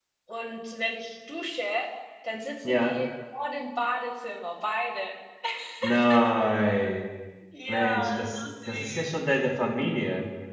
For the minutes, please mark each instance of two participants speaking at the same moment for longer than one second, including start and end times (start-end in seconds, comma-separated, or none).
7.7-9.2